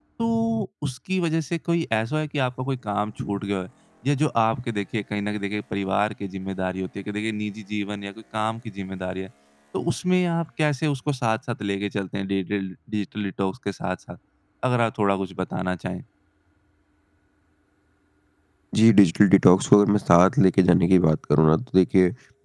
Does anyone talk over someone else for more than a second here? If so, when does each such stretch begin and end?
none

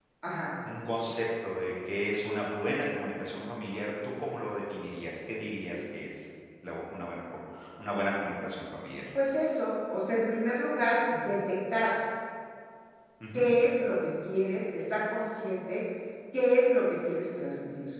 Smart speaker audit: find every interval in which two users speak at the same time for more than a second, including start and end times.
none

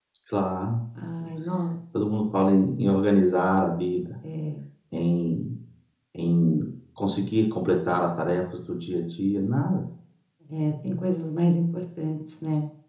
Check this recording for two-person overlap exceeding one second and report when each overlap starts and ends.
none

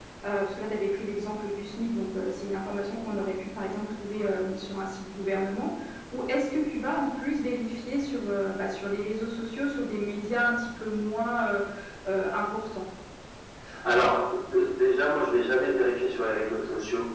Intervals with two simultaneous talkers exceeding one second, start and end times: none

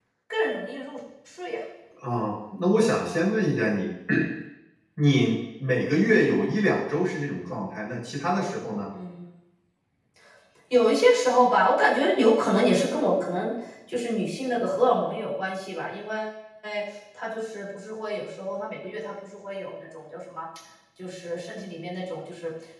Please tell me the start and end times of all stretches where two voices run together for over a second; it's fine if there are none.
none

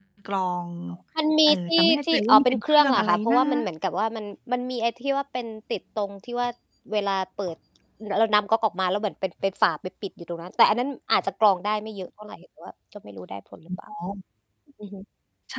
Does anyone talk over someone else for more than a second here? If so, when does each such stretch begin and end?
1.5-3.4

